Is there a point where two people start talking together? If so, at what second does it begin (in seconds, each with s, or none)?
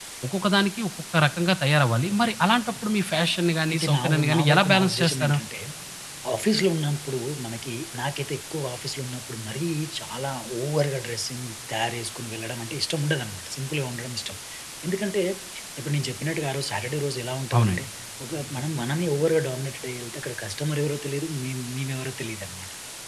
3.7 s